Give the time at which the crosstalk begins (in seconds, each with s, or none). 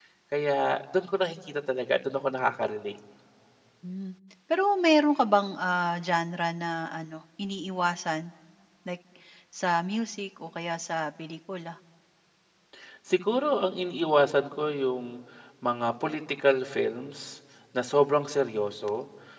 none